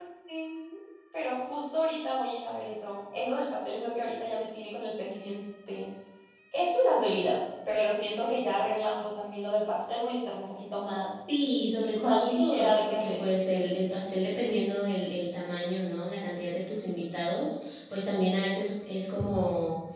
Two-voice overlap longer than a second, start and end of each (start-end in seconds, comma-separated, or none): 11.9-13.2